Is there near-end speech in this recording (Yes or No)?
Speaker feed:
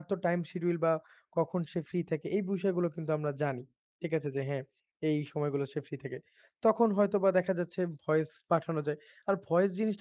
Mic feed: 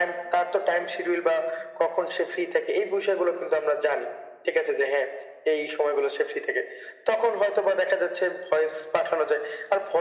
No